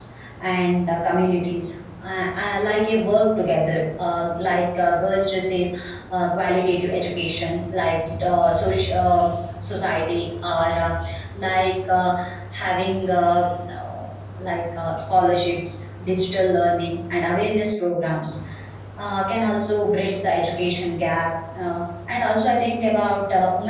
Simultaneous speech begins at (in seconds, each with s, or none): none